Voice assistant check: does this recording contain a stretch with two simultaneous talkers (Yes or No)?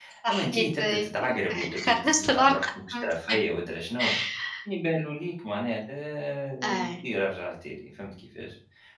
Yes